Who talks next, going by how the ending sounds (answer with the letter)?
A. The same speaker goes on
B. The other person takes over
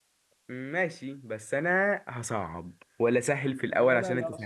B